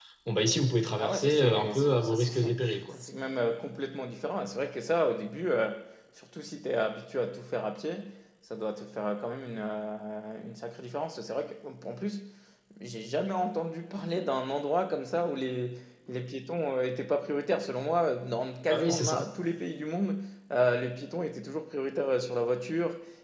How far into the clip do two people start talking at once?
1.0 s

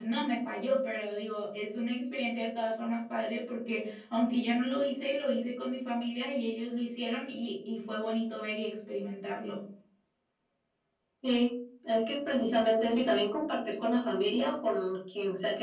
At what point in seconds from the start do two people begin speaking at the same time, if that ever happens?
none

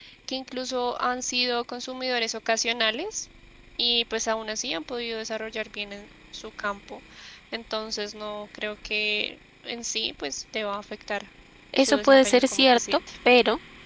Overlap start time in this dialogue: 11.8 s

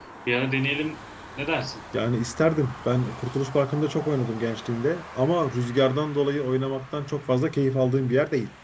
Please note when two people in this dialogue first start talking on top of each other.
none

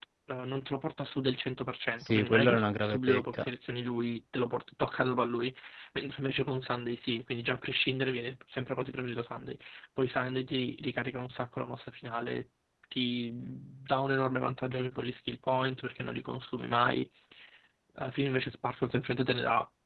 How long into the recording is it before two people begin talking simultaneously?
2.1 s

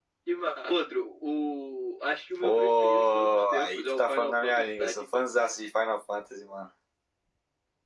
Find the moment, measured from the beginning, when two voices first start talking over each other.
2.4 s

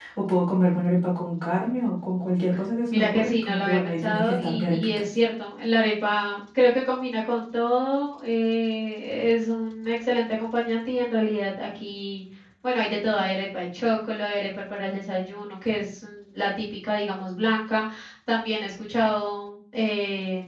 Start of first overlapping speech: 2.9 s

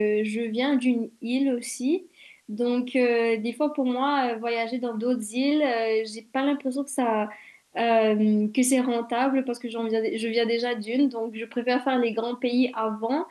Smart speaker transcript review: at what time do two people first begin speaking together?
none

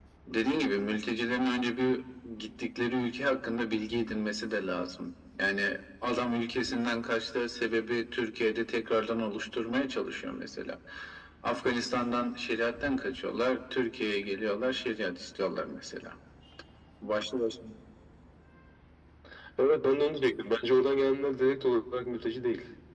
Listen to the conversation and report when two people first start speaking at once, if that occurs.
none

